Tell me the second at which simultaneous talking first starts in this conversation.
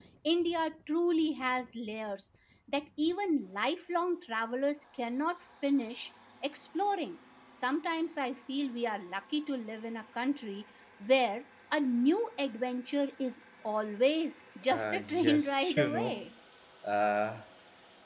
15 s

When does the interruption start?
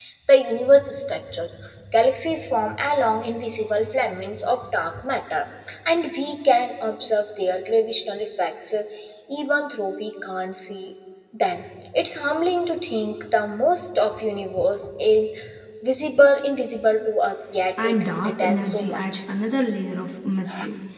18 s

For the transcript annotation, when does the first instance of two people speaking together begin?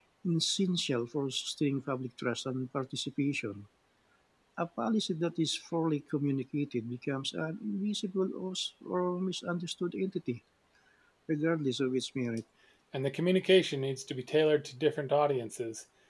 none

